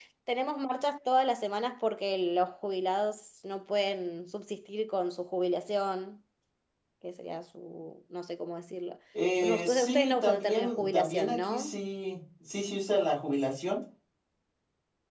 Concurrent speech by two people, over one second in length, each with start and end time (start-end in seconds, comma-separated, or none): 9.4-11.7